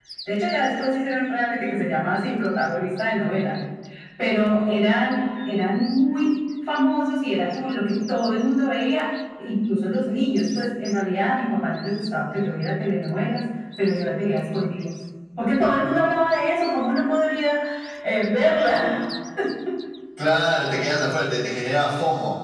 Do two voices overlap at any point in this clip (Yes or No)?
No